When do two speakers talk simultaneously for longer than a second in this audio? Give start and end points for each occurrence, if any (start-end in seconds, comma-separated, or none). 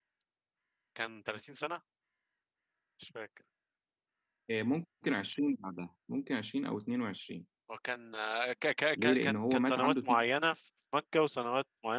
9.0-10.2